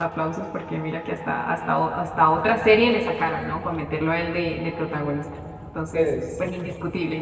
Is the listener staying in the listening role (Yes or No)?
Yes